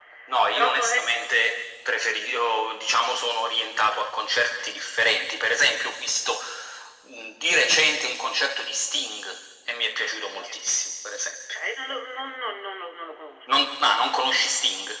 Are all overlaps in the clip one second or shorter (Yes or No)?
Yes